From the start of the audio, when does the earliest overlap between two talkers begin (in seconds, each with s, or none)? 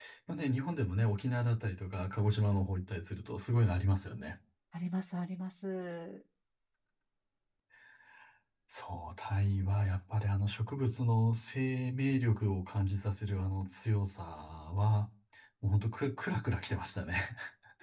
none